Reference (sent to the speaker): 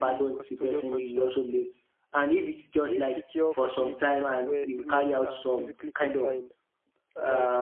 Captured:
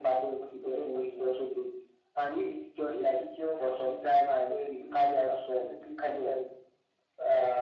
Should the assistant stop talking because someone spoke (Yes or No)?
No